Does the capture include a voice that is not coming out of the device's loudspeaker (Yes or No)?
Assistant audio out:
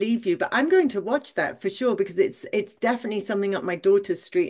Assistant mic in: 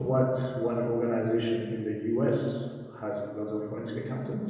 Yes